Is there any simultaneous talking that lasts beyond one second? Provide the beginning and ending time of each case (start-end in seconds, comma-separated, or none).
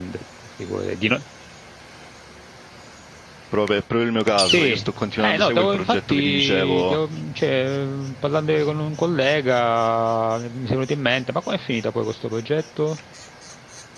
5.2-7.0